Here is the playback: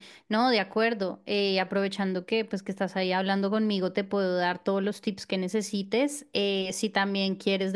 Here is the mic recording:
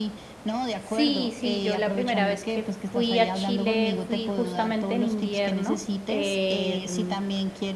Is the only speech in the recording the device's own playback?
No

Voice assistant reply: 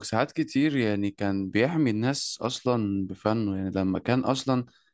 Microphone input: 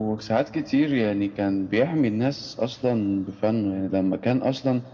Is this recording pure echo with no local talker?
Yes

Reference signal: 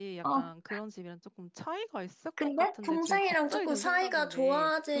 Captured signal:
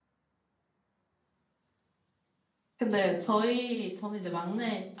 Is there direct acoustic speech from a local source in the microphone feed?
Yes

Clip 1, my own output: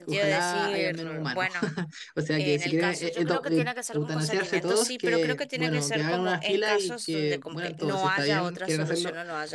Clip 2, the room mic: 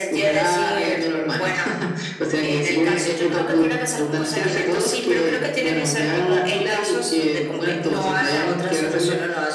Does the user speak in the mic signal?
No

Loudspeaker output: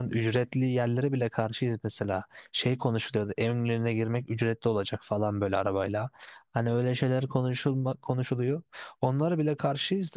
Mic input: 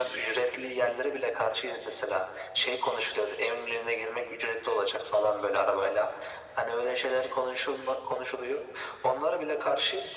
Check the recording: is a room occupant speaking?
No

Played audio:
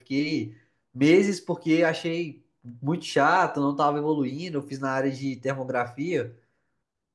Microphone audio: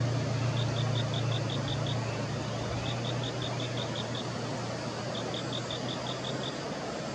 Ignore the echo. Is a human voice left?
No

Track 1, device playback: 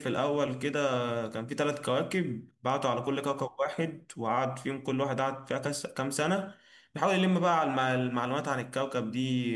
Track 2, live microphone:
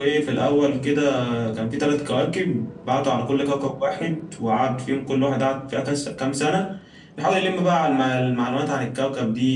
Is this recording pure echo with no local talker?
Yes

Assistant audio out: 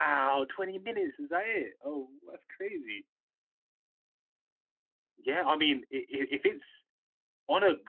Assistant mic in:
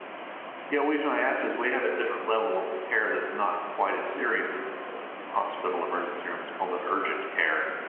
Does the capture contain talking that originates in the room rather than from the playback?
Yes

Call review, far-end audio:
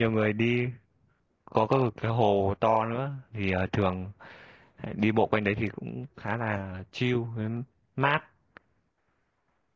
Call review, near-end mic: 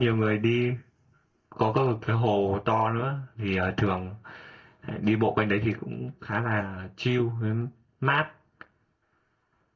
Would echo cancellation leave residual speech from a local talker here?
No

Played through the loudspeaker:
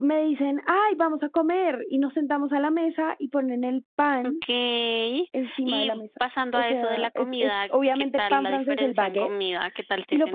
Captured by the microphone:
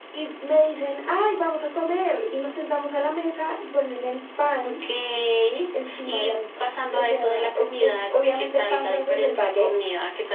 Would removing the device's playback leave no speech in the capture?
Yes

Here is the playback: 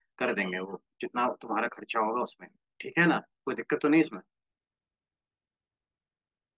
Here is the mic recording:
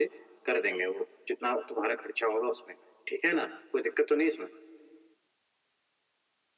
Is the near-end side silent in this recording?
Yes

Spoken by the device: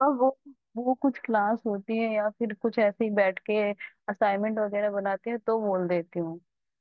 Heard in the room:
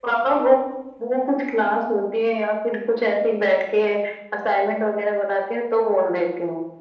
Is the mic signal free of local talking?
Yes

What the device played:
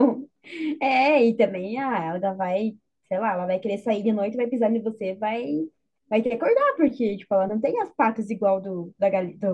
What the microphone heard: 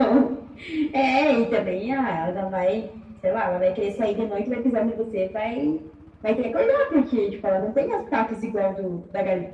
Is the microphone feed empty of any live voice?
Yes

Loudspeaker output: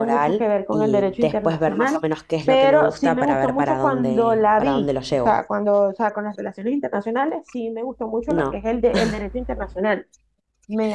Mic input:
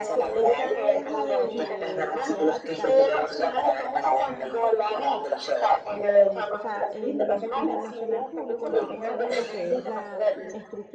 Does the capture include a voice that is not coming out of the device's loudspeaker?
Yes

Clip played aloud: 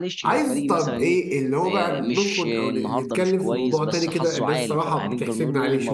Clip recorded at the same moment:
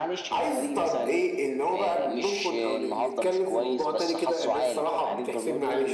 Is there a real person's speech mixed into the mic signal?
No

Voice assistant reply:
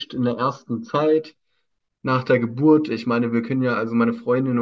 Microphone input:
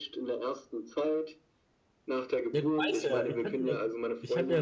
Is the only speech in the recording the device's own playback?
No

